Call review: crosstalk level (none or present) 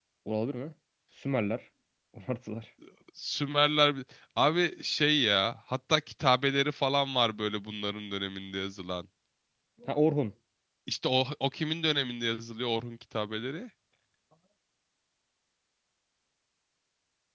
none